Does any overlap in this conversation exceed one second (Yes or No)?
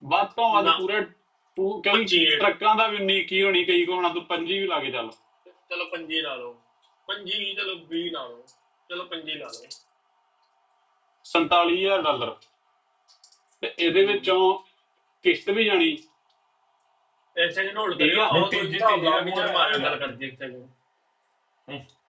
Yes